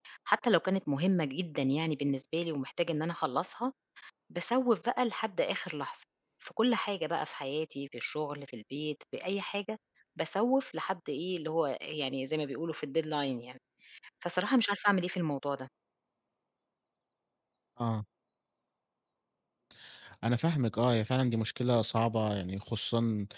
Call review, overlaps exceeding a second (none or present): none